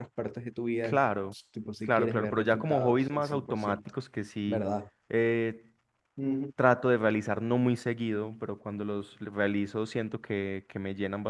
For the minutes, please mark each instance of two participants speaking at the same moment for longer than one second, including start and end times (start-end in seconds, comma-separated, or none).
1.9-3.8